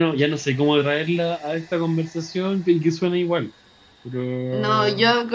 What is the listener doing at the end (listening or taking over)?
taking over